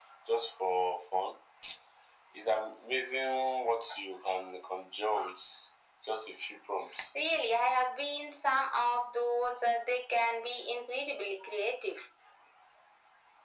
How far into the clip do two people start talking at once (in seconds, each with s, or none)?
none